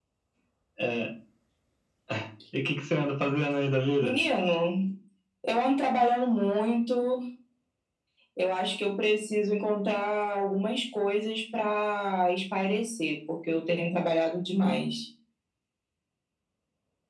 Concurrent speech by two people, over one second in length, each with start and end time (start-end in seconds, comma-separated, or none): none